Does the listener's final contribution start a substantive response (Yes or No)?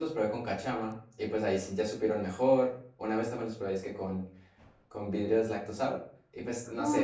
Yes